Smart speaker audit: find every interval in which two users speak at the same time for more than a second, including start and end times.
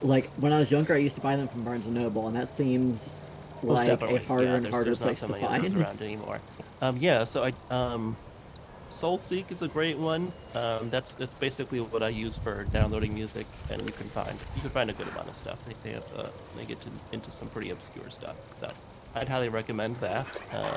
3.7-5.9

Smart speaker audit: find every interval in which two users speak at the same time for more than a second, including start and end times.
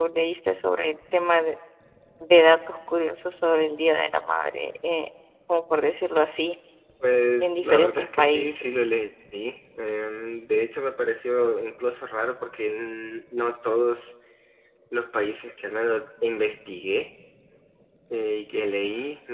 7.4-8.9

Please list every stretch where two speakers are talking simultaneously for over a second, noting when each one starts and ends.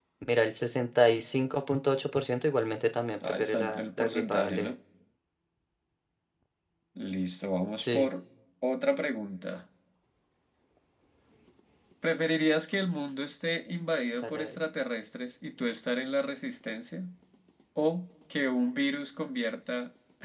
3.2-4.7

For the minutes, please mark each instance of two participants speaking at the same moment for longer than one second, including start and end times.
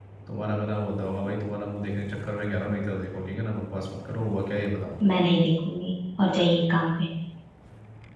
none

